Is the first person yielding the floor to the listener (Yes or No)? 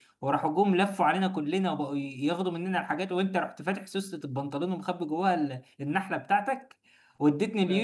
No